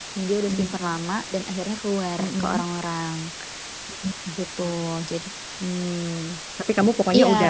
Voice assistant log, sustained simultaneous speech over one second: none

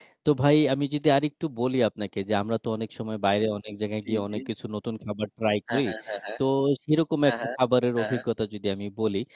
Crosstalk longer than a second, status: none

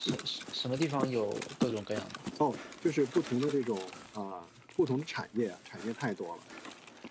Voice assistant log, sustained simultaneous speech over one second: none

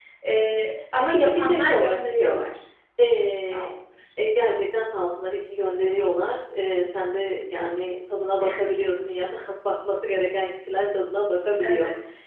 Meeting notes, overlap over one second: present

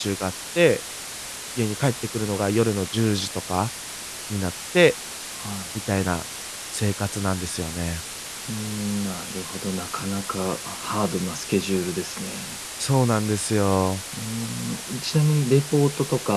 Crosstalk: none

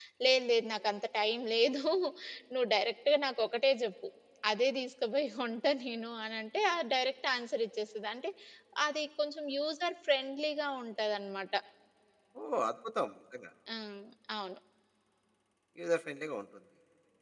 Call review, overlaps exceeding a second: none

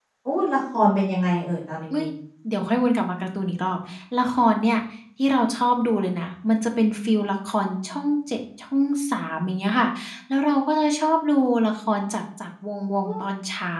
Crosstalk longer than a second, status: none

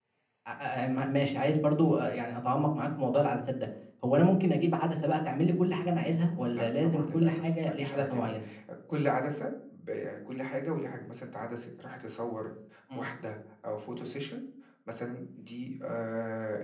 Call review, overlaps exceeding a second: present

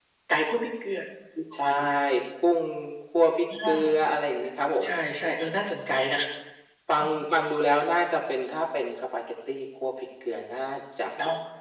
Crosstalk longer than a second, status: none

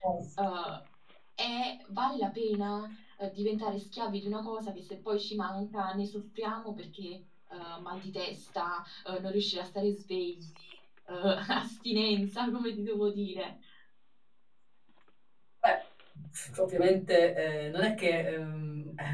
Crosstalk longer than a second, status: none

